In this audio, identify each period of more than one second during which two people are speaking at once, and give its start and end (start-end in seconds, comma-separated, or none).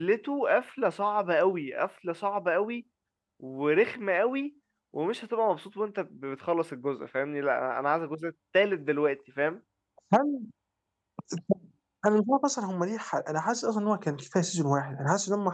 none